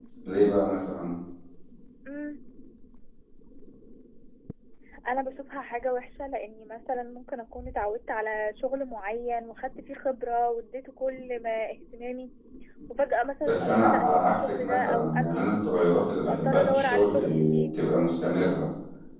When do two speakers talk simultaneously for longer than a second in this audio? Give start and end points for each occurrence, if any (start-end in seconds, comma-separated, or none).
13.4-15.8, 16.3-17.6